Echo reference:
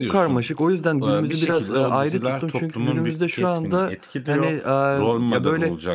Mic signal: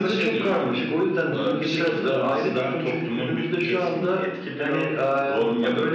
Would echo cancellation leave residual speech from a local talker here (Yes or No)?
No